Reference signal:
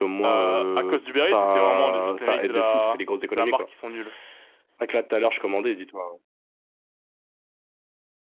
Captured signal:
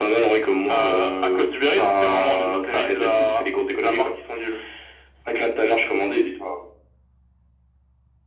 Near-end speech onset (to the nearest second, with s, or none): none